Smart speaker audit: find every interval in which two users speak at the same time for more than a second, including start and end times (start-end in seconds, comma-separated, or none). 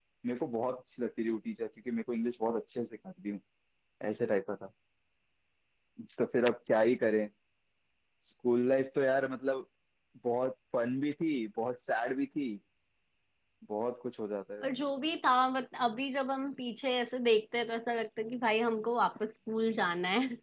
none